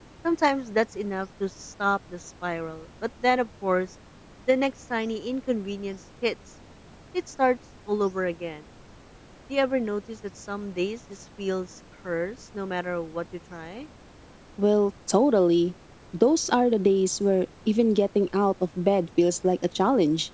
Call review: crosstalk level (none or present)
none